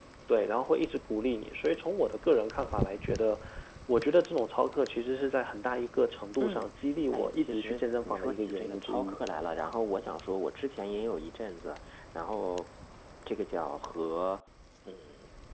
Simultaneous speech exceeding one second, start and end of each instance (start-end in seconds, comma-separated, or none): 7.1-9.2